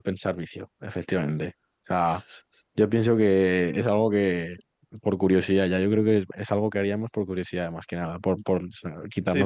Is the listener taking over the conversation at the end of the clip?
Yes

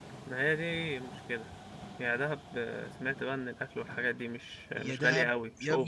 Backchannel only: No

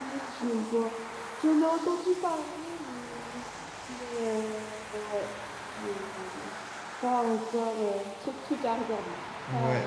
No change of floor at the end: No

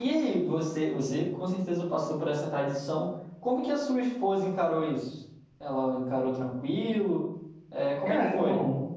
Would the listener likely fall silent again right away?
No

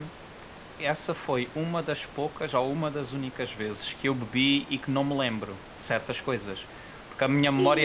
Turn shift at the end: Yes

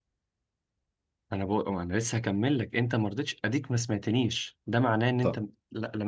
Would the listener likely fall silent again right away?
Yes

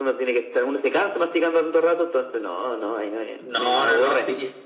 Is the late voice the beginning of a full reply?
Yes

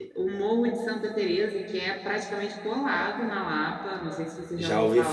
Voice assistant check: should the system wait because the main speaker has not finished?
No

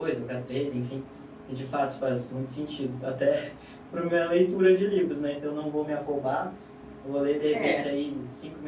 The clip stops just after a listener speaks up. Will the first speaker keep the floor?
Yes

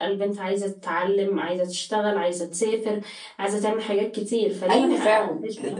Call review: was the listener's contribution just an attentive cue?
No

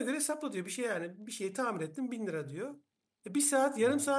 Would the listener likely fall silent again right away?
Yes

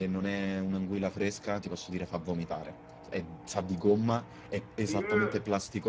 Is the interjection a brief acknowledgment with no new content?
Yes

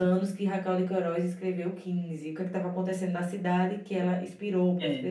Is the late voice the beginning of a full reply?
No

